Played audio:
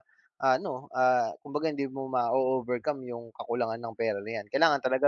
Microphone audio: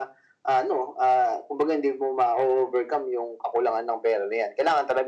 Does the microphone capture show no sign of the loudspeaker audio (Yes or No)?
No